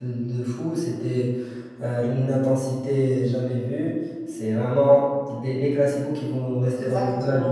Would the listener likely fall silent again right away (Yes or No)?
No